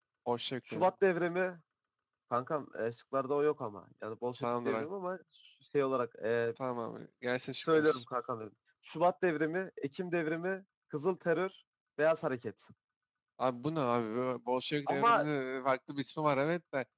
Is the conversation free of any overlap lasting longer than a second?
Yes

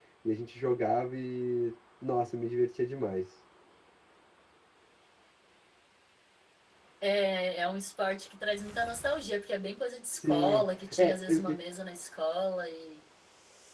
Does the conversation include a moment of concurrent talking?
Yes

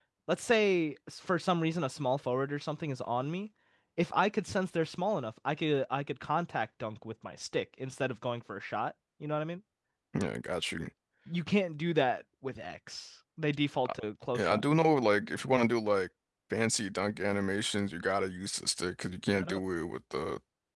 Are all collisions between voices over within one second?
Yes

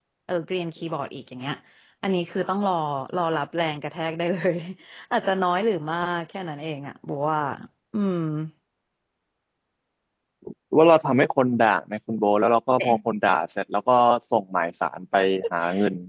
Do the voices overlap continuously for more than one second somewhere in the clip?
No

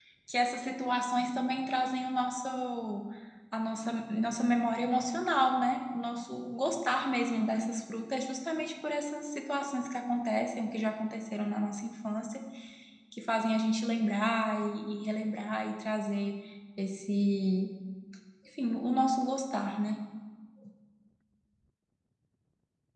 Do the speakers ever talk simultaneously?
No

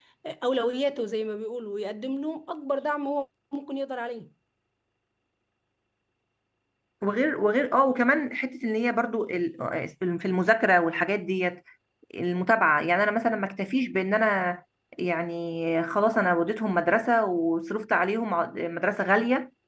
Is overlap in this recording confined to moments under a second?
Yes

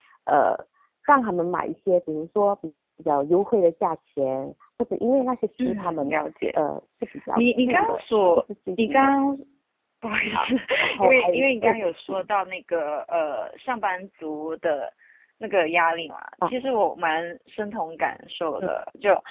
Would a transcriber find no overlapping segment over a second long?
No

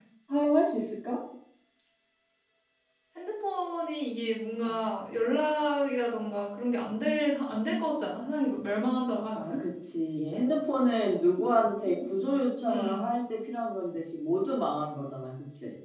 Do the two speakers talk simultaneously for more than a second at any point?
No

